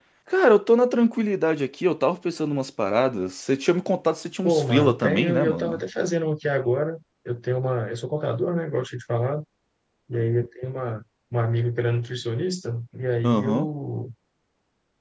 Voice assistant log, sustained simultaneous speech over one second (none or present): present